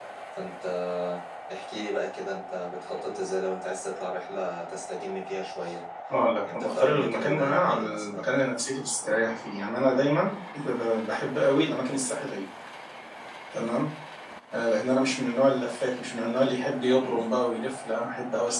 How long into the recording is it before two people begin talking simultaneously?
6.5 s

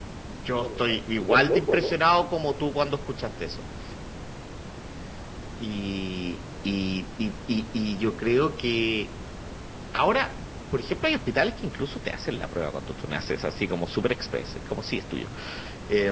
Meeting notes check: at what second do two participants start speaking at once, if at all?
0.6 s

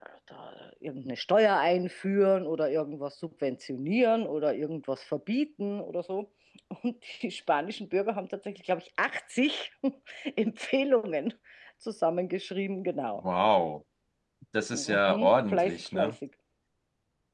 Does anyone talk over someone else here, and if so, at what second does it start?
14.7 s

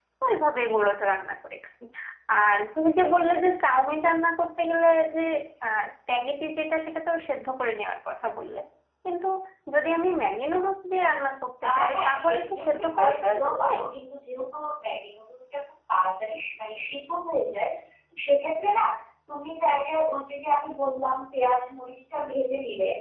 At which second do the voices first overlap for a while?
11.6 s

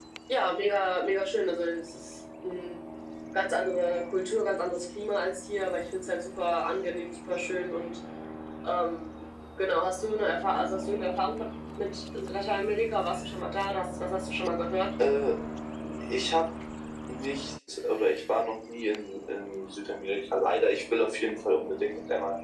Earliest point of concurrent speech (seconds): none

